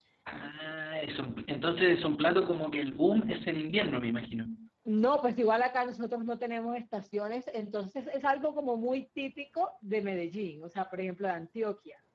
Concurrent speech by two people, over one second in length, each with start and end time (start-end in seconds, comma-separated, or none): none